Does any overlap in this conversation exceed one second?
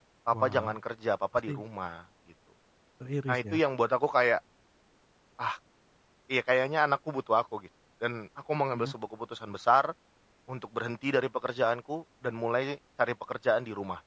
No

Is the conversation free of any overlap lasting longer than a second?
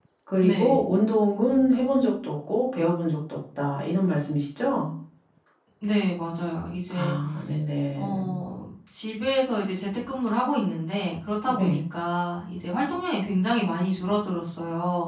Yes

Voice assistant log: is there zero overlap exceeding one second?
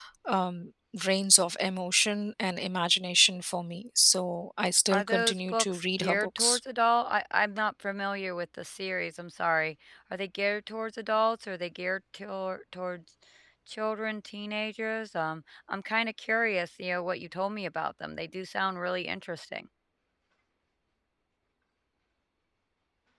No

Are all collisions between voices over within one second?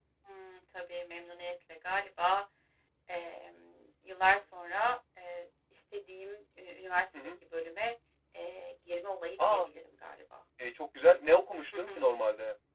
Yes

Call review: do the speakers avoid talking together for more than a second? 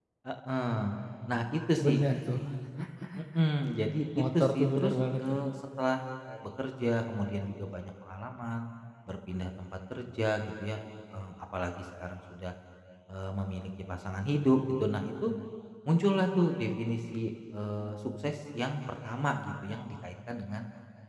No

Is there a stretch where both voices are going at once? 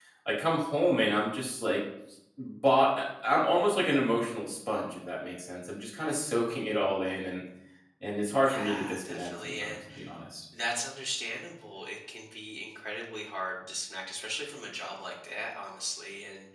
Yes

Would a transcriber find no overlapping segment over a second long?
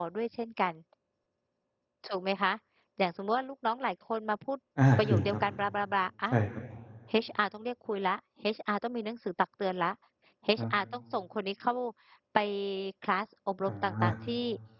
Yes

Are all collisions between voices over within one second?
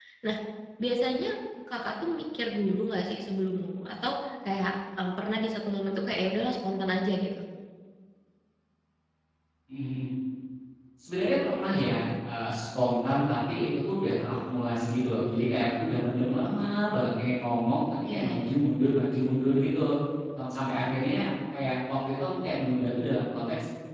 Yes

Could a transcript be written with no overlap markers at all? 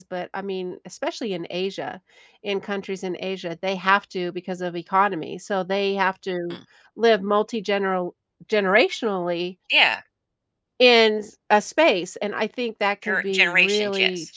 No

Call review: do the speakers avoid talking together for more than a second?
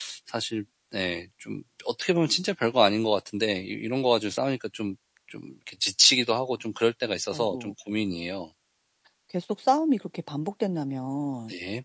Yes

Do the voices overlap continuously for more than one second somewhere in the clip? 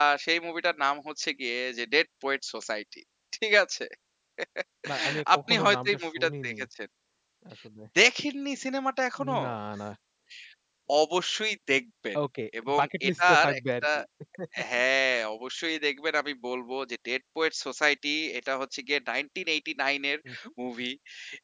Yes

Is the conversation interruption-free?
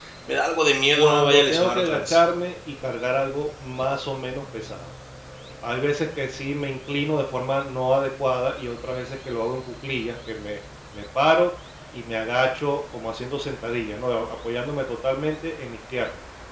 No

